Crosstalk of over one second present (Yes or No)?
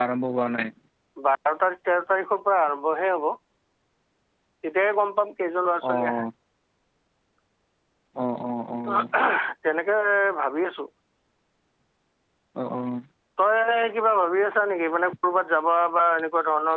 No